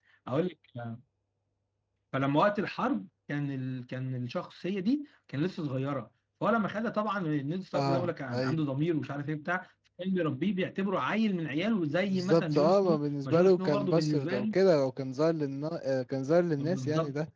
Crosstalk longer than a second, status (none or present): present